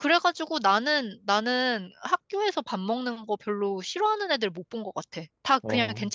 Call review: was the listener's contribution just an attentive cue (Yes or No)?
Yes